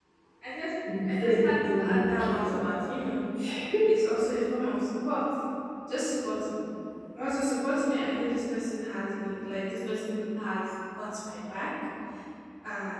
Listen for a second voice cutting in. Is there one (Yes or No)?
Yes